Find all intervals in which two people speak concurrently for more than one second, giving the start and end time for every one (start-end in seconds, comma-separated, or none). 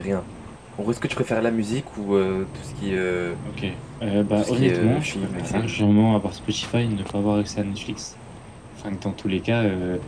4.4-5.8